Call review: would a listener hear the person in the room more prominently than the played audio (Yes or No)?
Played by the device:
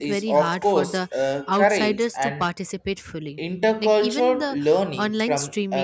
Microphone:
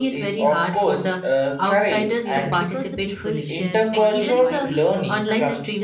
No